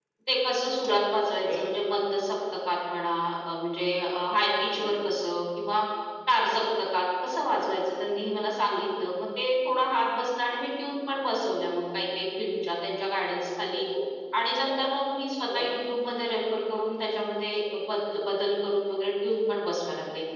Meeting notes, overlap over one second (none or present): none